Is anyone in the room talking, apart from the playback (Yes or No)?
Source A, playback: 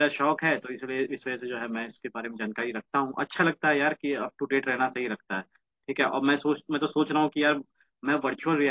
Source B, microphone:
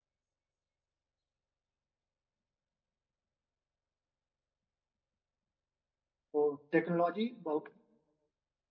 Yes